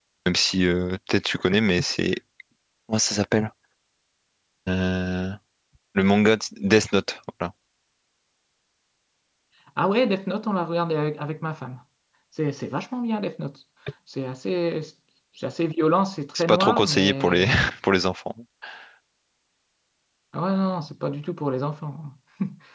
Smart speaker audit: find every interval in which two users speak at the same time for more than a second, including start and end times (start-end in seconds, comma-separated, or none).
16.4-17.7